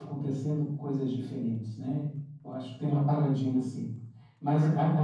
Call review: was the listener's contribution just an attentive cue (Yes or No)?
Yes